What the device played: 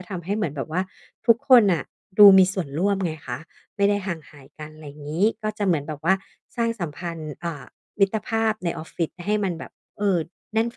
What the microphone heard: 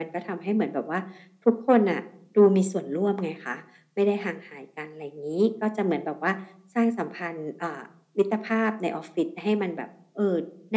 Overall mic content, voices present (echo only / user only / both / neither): echo only